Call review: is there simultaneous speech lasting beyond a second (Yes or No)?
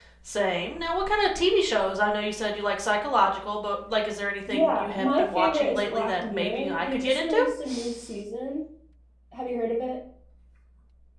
Yes